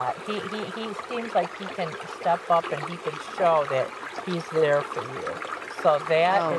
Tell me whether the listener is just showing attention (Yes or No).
Yes